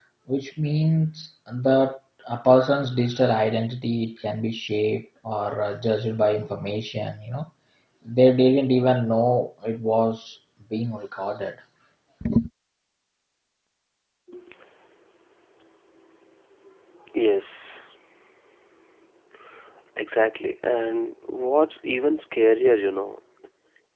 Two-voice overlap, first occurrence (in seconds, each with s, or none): none